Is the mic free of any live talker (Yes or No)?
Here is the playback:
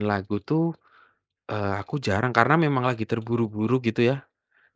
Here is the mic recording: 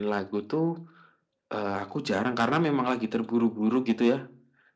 Yes